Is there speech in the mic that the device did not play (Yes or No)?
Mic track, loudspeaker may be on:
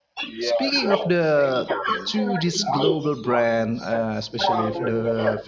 Yes